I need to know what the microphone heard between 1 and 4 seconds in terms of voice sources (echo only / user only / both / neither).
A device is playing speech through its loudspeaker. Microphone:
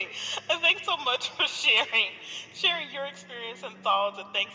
echo only